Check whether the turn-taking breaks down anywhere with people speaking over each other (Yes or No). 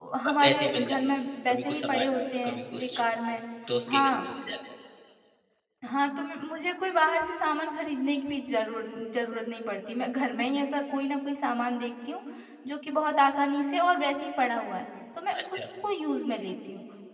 Yes